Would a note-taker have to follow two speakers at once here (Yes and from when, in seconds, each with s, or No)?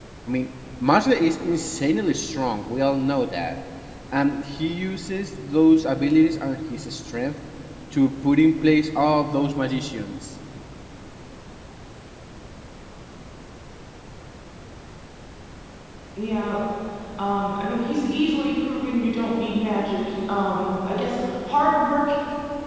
No